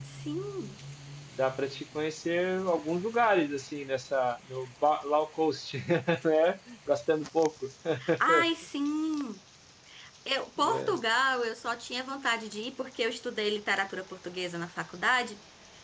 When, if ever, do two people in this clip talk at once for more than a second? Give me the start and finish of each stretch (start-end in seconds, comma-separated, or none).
none